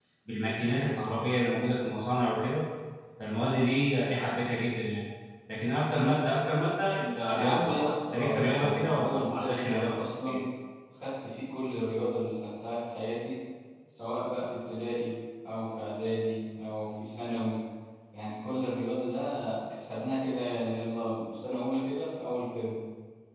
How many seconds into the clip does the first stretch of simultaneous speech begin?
7.2 s

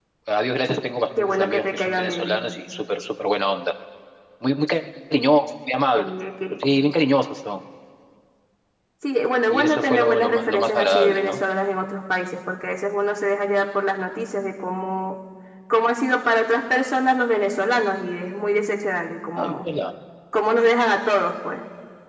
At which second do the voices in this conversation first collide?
1.2 s

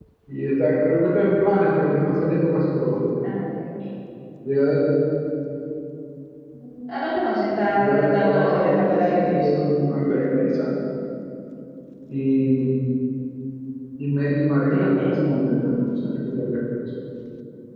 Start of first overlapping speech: 7.7 s

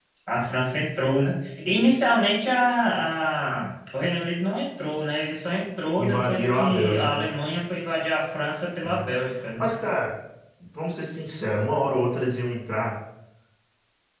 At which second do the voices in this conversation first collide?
6.0 s

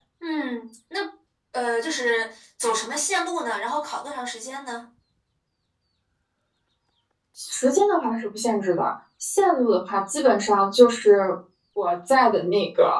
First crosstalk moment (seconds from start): none

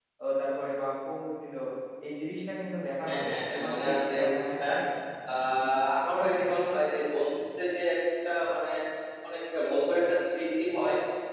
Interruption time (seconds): 3.0 s

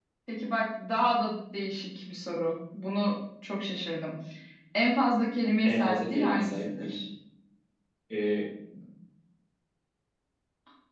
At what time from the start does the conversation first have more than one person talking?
5.6 s

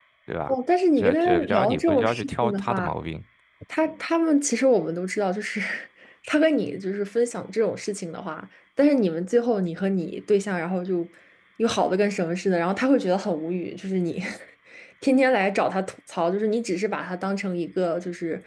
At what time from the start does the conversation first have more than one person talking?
1.0 s

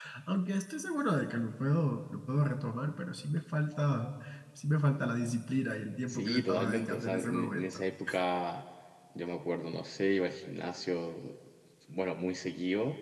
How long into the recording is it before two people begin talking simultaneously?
6.1 s

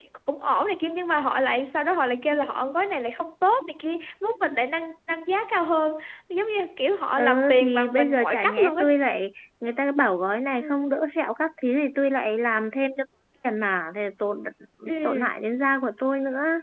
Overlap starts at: 7.2 s

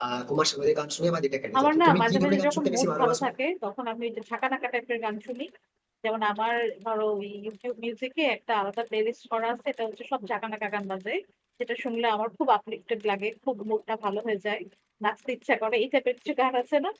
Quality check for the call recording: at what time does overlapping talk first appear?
1.5 s

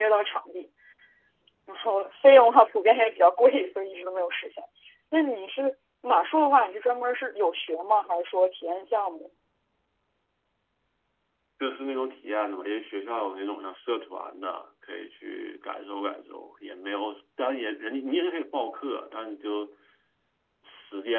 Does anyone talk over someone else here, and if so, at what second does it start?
none

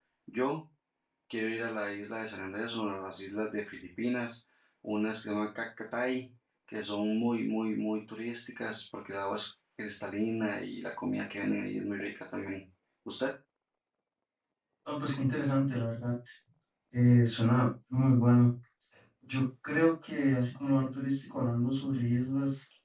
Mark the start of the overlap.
none

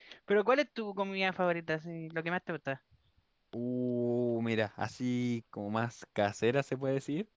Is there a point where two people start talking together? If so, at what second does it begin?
none

